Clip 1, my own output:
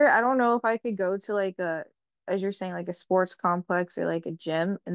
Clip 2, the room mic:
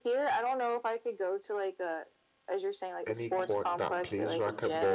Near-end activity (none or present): present